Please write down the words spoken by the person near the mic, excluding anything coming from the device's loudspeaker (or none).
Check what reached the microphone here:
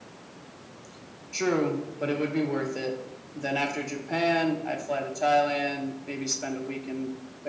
none